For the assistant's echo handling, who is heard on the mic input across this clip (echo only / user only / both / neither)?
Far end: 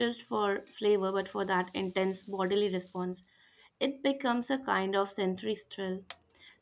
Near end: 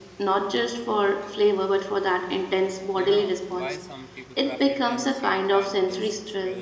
both